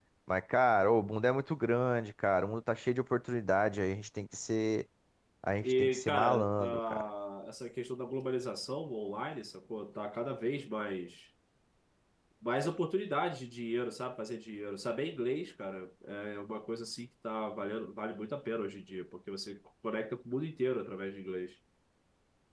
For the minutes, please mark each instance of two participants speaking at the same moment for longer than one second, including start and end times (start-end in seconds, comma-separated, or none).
5.6-7.1